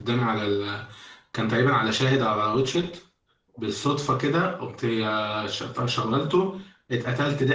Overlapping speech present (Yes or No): No